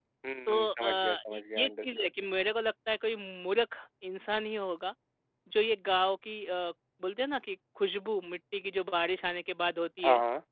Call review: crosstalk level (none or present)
present